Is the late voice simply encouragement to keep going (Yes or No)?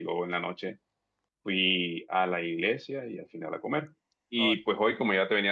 Yes